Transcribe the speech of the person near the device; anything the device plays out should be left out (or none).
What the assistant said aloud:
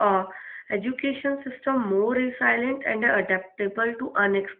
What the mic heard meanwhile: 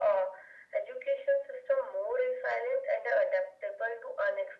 none